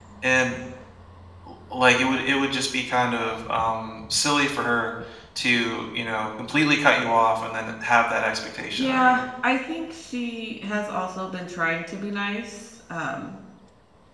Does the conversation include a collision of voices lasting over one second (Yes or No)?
No